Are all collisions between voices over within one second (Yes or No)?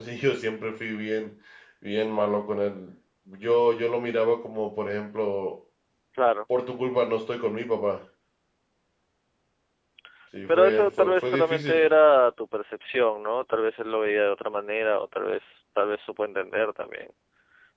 No